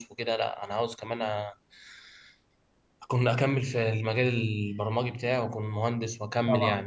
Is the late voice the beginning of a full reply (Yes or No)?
Yes